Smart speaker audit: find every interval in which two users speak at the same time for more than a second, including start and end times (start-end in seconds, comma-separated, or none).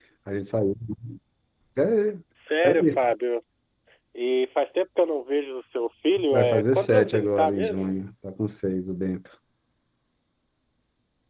6.3-7.9